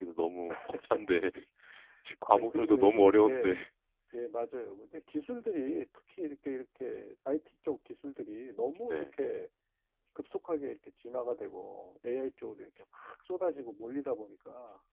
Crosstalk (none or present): present